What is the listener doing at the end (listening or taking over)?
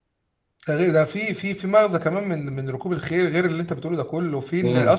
listening